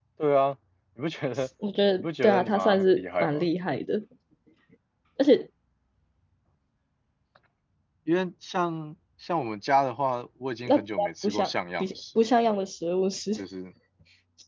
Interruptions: present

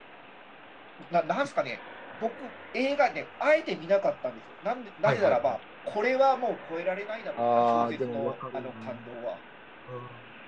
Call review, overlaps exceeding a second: present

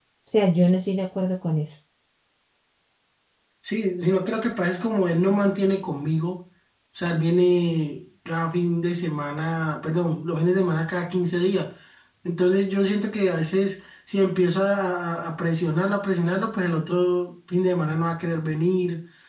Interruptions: none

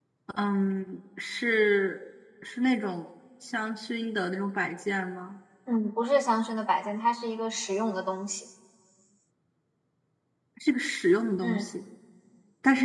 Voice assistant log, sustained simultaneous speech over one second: none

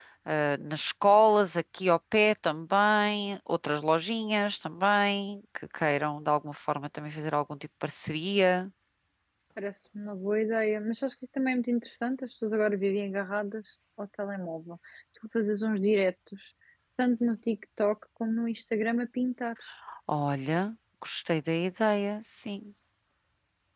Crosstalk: none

